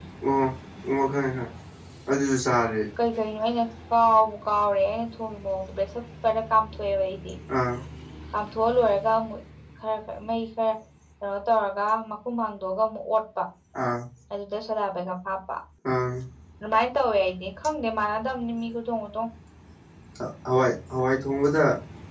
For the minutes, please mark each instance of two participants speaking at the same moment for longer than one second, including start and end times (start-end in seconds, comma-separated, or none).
none